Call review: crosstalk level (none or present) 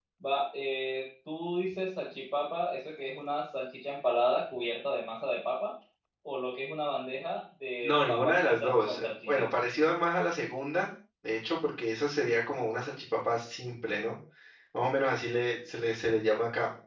present